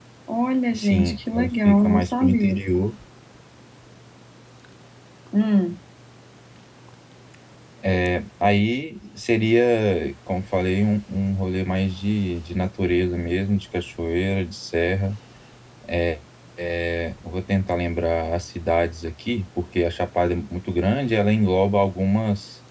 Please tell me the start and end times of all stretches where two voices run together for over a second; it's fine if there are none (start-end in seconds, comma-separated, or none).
0.7-2.6